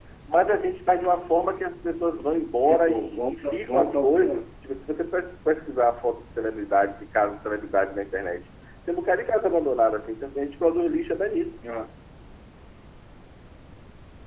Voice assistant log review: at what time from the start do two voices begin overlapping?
3 s

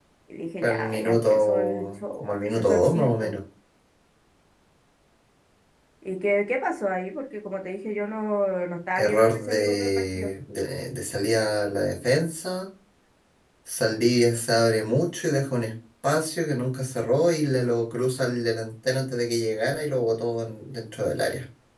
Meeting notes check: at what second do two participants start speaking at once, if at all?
1 s

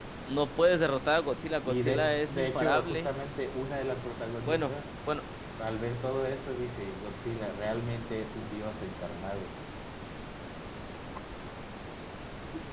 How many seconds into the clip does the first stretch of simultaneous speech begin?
2 s

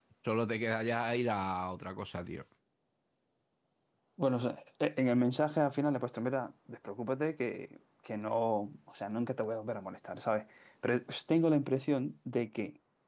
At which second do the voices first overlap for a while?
none

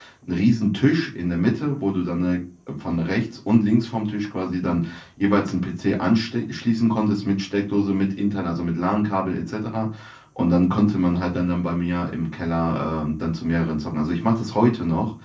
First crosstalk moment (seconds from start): none

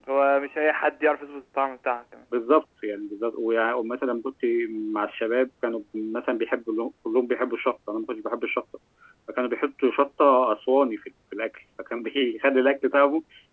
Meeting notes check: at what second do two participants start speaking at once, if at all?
none

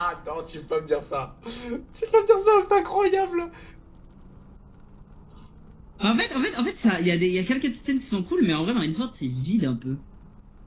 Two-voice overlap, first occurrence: none

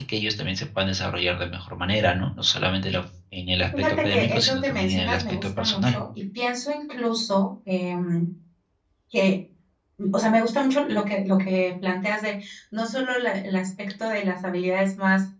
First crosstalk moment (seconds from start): 4 s

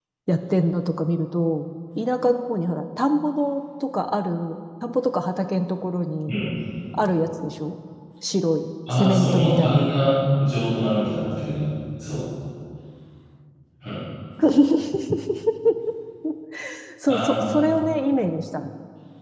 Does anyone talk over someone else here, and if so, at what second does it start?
9 s

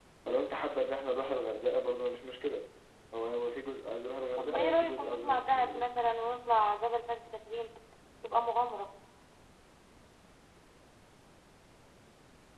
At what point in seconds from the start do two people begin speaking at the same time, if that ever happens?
4 s

